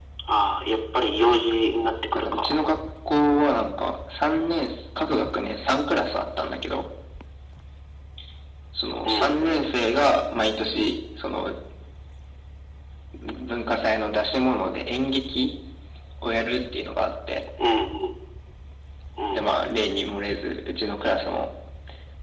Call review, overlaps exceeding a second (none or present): none